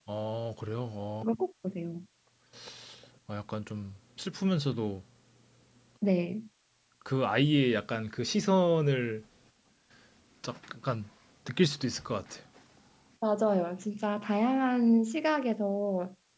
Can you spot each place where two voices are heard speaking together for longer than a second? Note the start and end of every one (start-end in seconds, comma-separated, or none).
none